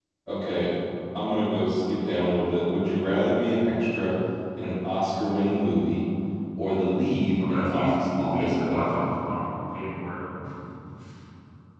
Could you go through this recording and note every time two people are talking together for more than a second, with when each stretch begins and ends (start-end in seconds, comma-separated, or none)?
7.5-9.1